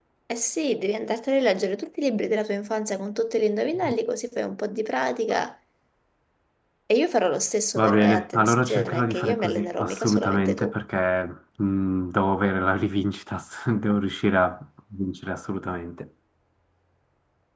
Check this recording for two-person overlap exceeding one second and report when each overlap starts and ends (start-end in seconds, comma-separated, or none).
7.8-10.8